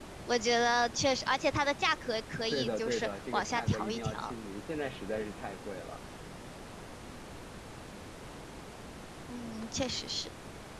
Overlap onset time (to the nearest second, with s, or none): 3 s